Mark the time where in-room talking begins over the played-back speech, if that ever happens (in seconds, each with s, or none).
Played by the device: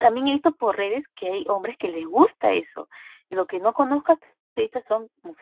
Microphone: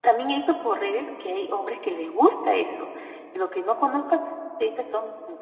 none